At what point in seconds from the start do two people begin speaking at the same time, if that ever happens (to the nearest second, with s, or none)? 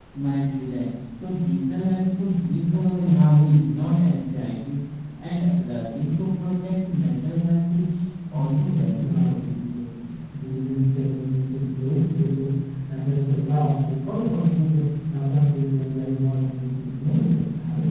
8 s